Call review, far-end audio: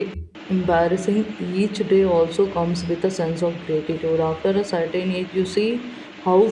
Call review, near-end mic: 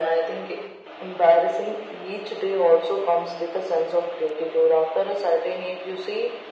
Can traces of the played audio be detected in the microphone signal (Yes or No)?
Yes